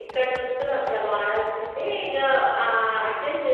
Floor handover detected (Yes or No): No